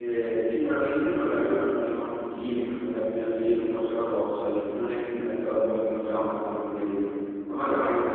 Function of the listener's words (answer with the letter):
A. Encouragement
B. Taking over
A